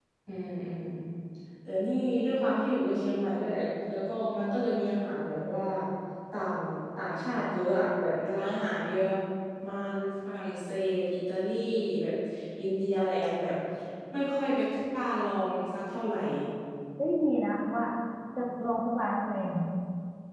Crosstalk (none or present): none